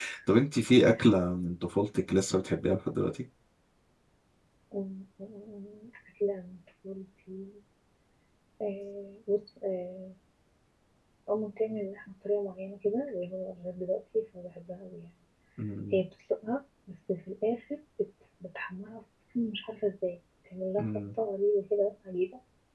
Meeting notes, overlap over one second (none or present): none